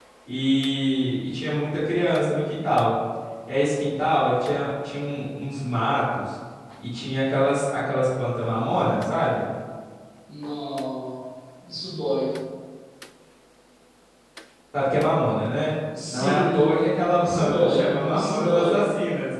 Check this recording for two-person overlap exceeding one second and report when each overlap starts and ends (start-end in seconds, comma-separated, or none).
16.1-18.9